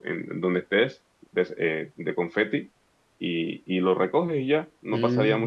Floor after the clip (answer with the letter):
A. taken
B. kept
A